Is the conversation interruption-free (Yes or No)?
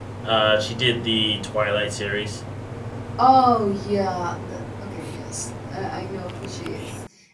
Yes